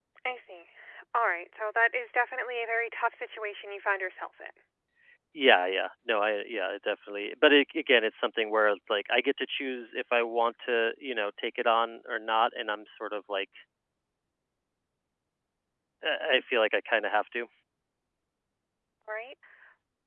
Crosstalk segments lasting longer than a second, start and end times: none

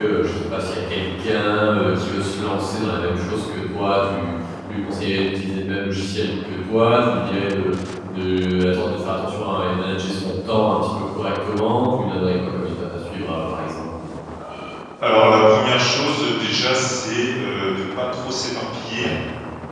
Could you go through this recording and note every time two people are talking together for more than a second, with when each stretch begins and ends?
none

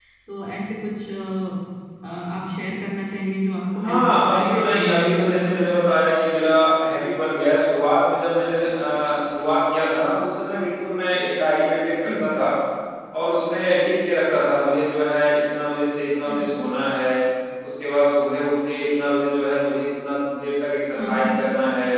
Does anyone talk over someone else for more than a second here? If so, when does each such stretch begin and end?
3.8-5.6

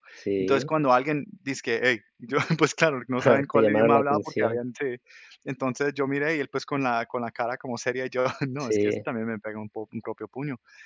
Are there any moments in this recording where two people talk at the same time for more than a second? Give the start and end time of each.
3.2-4.6

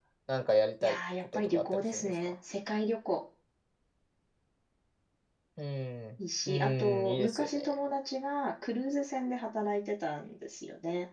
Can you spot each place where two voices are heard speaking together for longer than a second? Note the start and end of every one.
0.8-2.3, 6.5-7.8

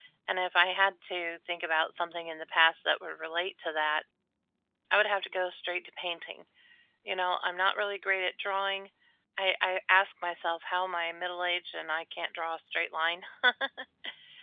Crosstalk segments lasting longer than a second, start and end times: none

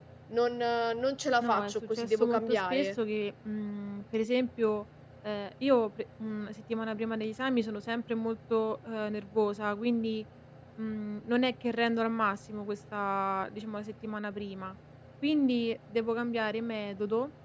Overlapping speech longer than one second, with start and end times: 1.4-2.9

